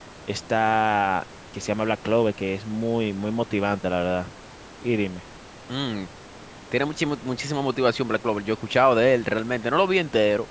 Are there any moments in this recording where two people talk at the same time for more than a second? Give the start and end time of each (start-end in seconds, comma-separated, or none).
none